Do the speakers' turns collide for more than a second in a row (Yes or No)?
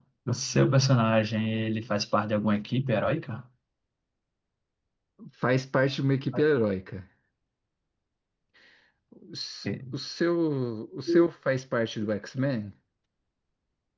No